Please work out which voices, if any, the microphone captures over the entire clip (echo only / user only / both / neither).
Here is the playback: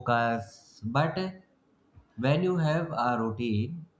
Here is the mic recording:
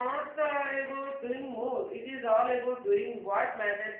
user only